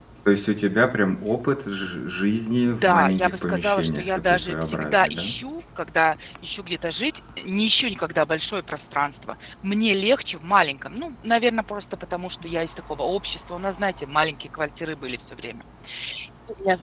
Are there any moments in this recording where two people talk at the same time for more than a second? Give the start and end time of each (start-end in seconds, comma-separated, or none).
2.8-5.3